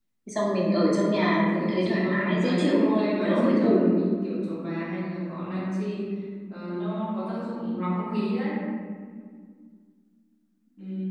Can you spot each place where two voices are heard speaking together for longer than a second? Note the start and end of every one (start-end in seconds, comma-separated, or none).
1.5-3.8